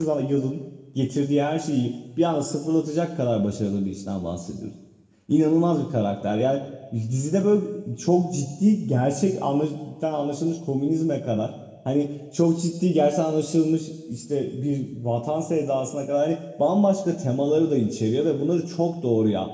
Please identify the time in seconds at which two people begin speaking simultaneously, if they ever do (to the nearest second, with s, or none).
none